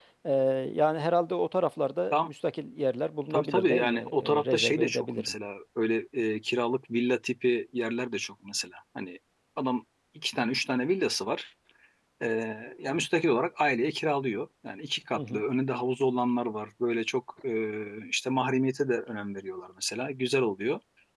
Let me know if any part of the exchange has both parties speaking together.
Yes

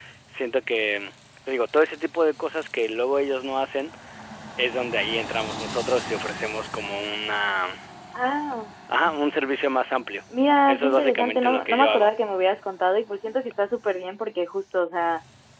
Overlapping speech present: Yes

